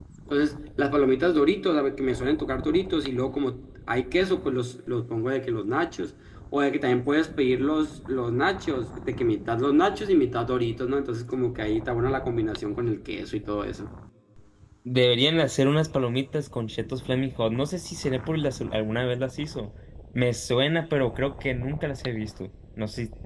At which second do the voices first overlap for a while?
none

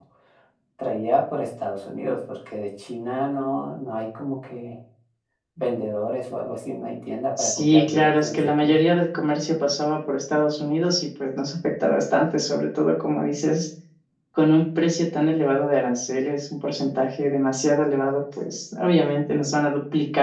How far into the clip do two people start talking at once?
7.4 s

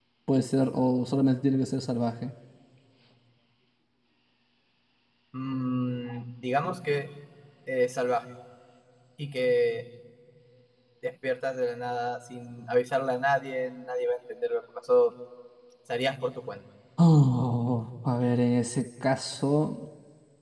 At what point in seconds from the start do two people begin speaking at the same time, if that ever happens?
none

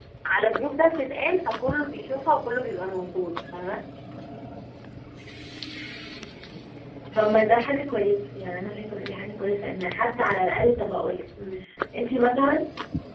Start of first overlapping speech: none

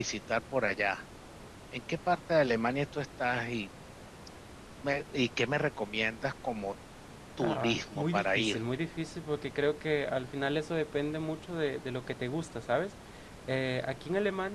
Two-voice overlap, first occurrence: 7.4 s

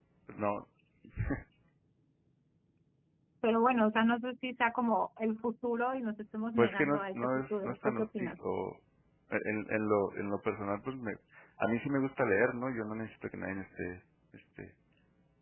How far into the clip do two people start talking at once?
6.6 s

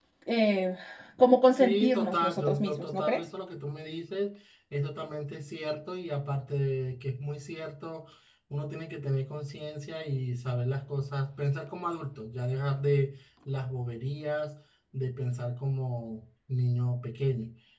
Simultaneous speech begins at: 1.5 s

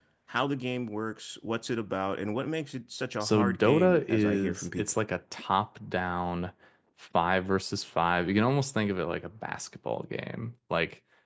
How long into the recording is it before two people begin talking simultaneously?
3.2 s

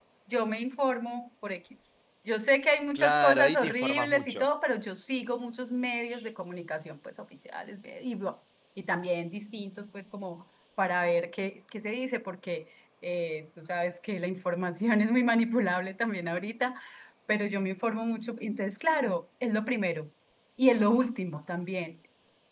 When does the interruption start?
2.9 s

